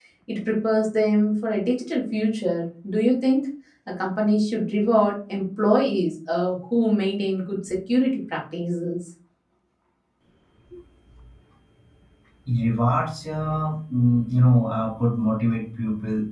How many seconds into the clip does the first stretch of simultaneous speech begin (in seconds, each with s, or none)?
none